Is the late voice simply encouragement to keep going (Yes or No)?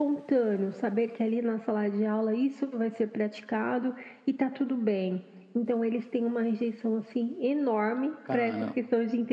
Yes